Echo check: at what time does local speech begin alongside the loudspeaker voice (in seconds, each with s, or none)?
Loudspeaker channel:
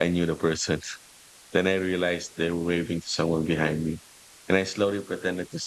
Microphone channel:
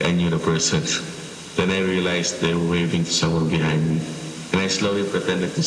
none